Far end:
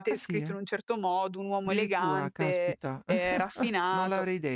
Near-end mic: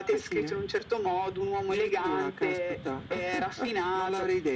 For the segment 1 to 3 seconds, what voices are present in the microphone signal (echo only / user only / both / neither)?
echo only